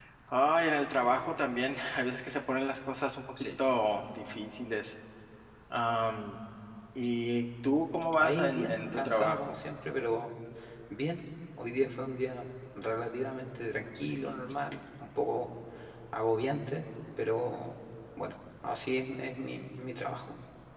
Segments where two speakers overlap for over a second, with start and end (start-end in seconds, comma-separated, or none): 8.2-9.6